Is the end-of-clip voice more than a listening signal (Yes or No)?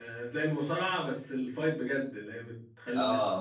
Yes